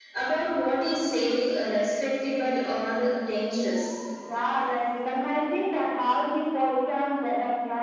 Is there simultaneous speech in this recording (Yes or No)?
No